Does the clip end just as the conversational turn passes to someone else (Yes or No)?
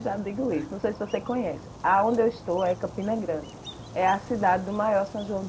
No